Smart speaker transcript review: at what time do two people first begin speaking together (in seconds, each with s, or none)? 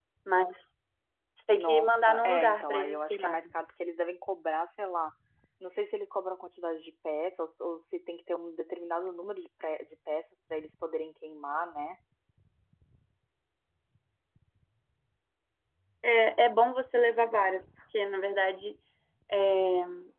1.5 s